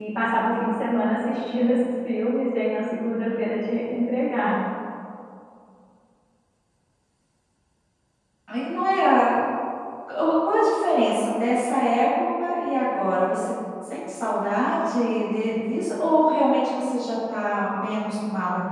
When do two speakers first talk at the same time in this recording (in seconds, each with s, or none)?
none